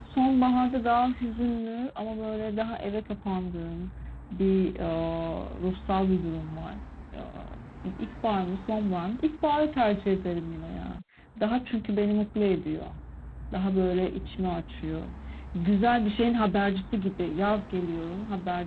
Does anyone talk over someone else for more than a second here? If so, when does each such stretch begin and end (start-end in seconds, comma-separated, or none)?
none